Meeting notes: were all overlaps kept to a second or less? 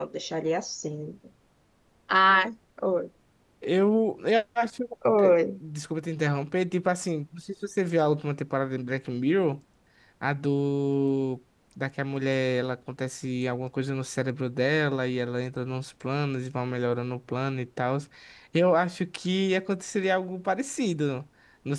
Yes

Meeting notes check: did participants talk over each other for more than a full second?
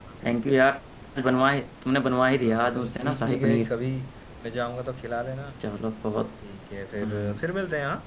Yes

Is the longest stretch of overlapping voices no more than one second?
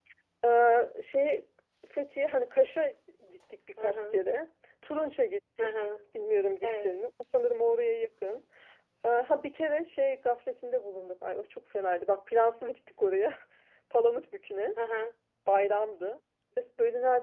Yes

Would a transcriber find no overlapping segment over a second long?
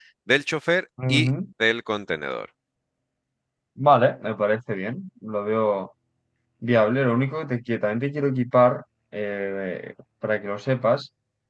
Yes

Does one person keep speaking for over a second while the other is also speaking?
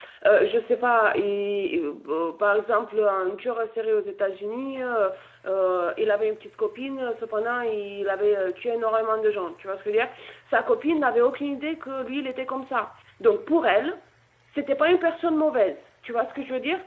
No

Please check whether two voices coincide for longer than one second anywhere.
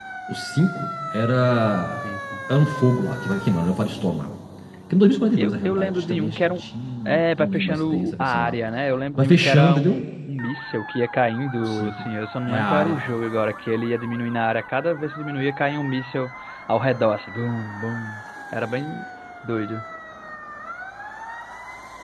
Yes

